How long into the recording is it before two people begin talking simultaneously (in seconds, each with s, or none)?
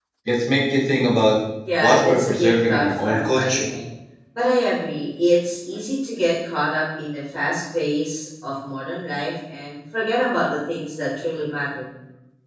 1.8 s